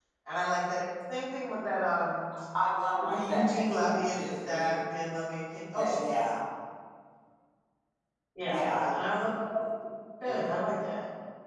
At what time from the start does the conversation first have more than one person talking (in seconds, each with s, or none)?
3.0 s